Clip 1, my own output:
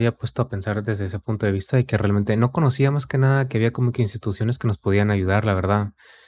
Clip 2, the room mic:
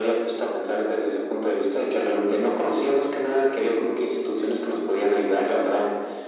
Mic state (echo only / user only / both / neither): echo only